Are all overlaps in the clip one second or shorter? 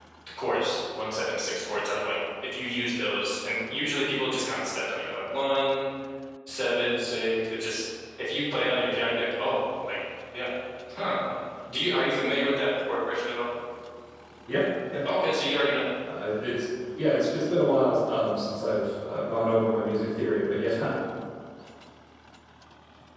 Yes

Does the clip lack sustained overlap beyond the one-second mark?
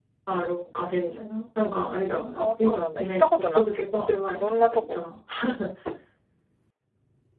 No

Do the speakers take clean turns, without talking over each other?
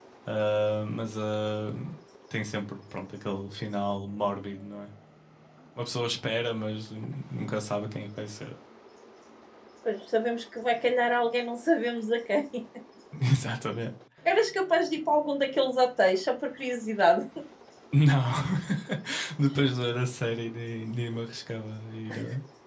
Yes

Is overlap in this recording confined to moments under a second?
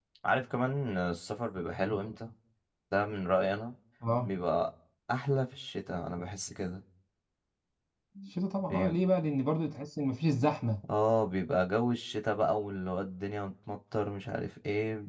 Yes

